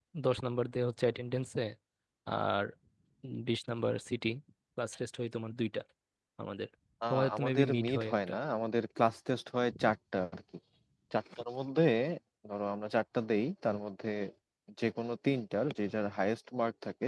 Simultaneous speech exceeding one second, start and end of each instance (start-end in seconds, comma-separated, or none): 7.1-8.3